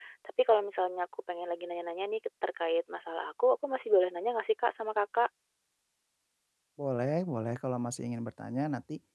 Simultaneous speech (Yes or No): No